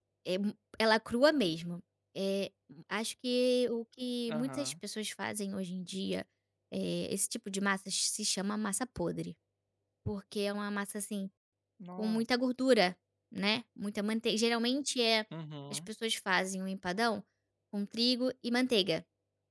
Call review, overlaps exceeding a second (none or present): none